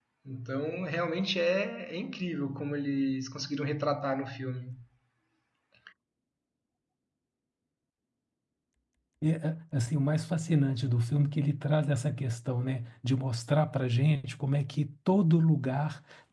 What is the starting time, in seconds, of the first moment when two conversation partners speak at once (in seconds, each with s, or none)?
none